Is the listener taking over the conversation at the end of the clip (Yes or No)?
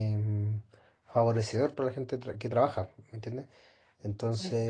No